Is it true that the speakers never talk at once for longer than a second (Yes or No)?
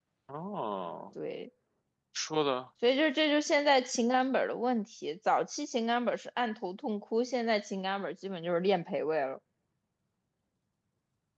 Yes